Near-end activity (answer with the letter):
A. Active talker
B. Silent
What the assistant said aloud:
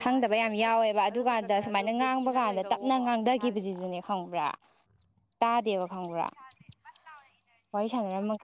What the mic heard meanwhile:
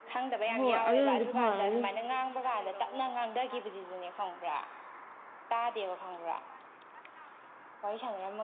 A